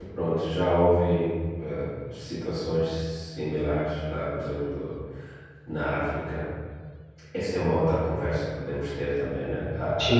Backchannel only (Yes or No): Yes